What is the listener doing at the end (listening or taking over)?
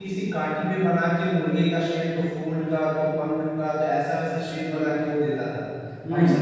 listening